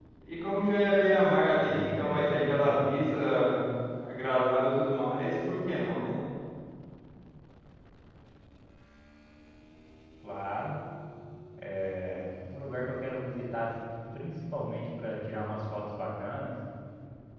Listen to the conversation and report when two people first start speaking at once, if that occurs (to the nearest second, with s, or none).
2 s